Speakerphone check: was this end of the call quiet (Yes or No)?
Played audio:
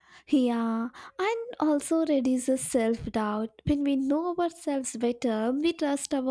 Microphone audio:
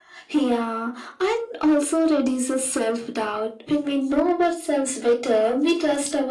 Yes